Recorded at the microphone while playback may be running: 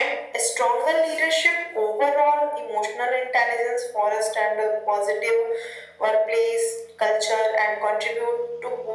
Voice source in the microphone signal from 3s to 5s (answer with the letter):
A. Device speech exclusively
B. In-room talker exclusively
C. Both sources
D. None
A